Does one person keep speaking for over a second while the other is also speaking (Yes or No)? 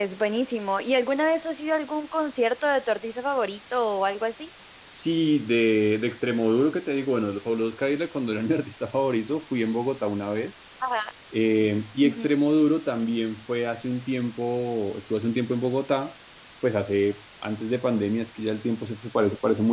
No